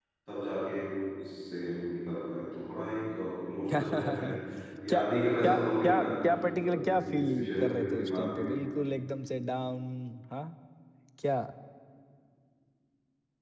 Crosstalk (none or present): present